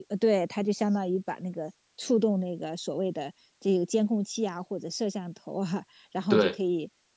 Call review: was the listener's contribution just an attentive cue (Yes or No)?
Yes